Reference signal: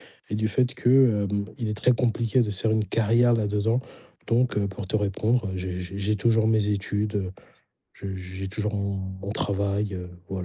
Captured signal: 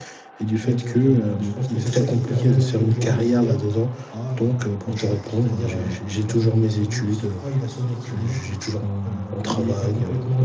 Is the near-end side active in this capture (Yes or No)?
Yes